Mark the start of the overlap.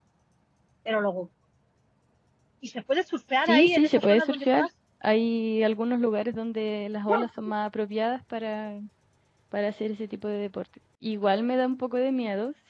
3.5 s

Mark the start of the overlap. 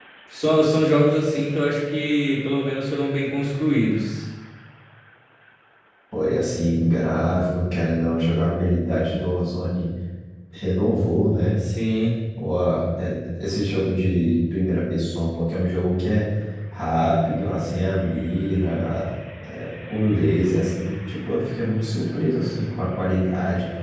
none

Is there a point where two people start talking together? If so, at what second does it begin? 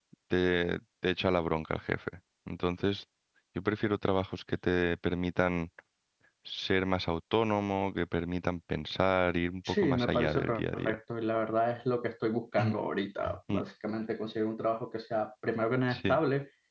9.7 s

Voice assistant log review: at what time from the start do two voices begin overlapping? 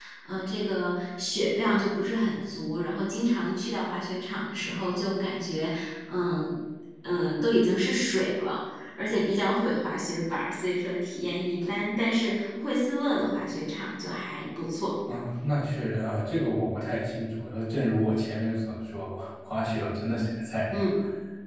none

